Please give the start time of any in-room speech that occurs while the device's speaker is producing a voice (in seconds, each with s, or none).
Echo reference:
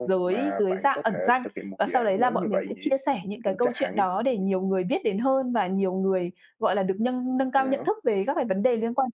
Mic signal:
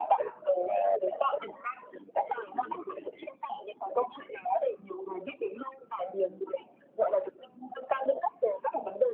none